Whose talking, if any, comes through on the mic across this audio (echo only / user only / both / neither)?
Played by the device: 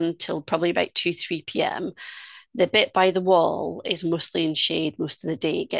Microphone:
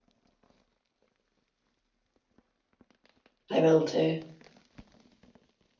user only